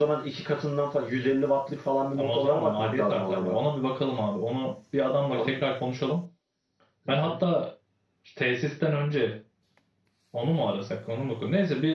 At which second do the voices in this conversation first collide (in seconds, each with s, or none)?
2.2 s